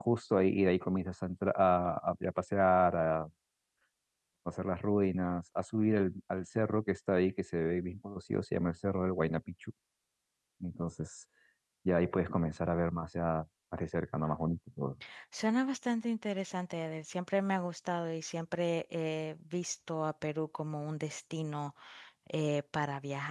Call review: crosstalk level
none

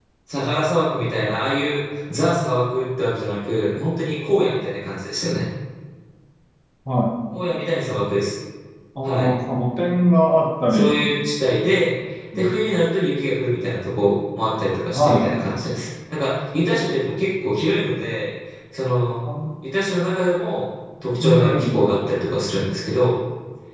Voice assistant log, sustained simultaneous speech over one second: none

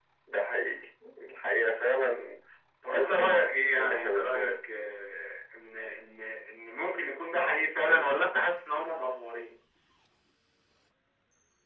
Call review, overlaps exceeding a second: present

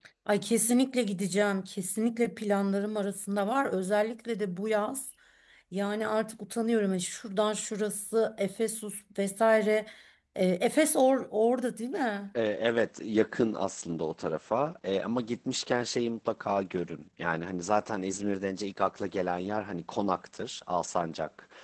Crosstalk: none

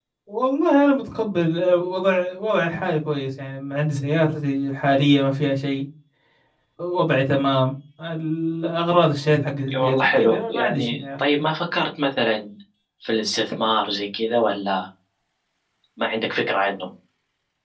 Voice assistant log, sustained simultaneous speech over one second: present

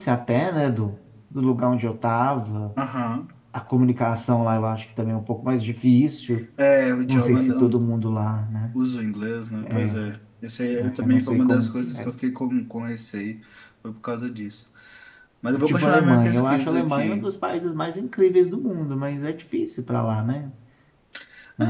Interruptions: present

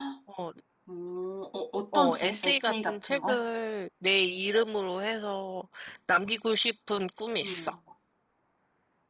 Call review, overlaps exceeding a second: present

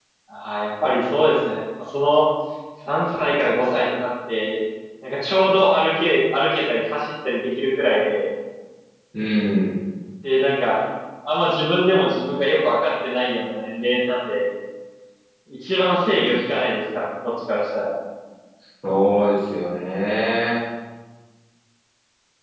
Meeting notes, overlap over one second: none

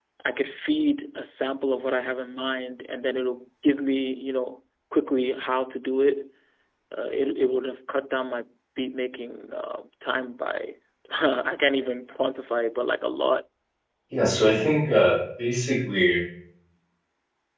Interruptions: none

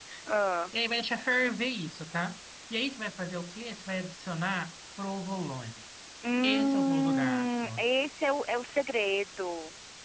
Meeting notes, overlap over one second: present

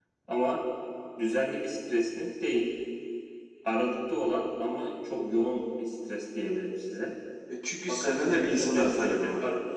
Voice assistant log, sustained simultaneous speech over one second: present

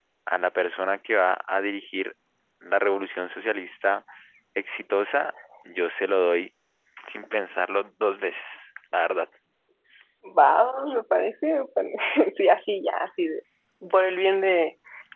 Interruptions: none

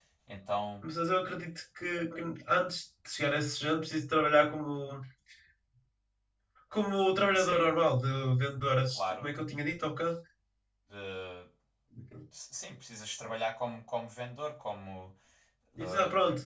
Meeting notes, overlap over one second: none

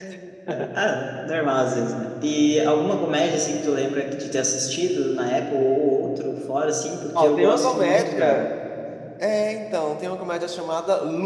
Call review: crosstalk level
present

